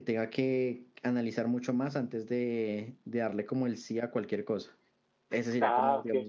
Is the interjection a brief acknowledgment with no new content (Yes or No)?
No